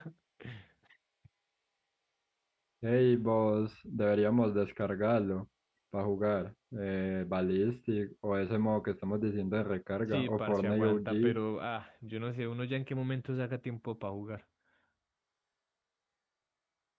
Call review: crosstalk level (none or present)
present